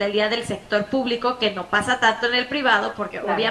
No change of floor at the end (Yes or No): Yes